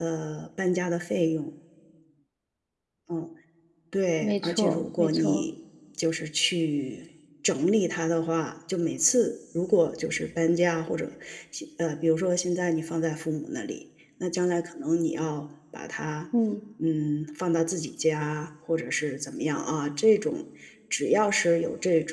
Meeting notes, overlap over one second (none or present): present